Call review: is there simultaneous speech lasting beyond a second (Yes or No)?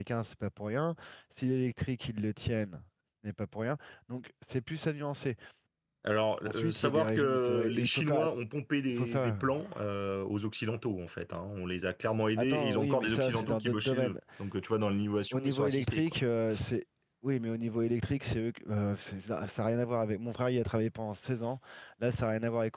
Yes